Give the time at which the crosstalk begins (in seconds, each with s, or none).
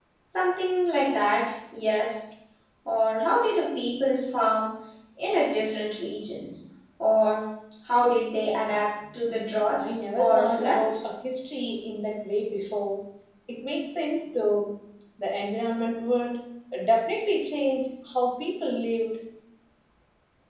9.8 s